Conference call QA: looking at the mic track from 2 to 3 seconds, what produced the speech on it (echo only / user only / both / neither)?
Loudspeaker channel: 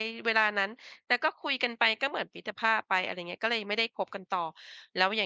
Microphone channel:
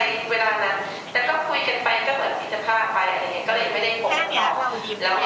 both